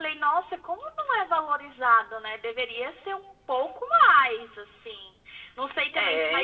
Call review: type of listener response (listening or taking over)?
listening